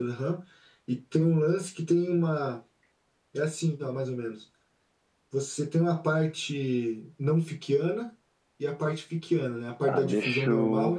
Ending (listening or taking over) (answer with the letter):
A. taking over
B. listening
A